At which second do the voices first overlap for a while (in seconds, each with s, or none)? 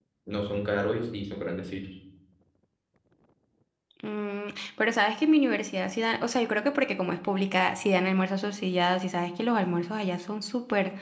none